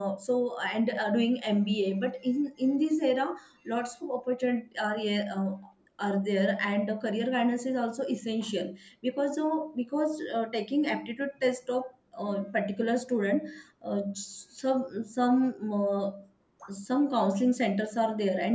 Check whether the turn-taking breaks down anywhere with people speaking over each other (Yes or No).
No